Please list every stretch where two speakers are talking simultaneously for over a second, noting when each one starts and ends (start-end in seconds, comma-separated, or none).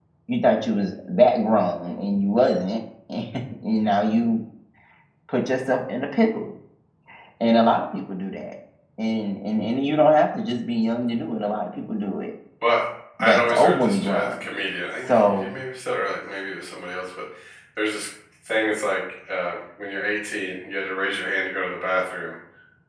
13.2-14.5